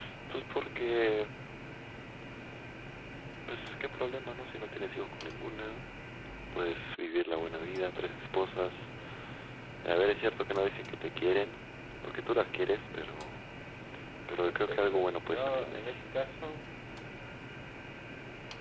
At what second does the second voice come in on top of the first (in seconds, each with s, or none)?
14.5 s